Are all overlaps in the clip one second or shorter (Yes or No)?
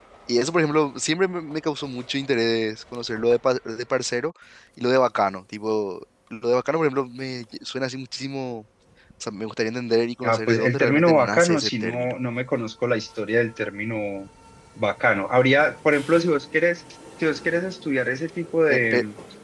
No